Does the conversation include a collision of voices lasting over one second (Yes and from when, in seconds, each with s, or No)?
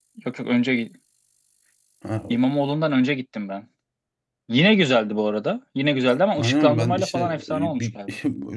Yes, from 6.3 s